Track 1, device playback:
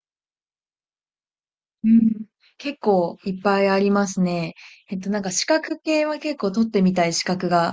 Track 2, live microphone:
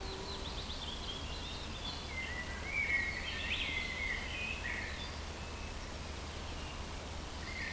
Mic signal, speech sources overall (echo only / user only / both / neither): neither